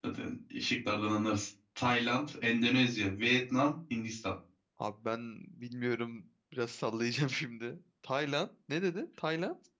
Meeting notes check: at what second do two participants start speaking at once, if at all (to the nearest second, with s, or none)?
none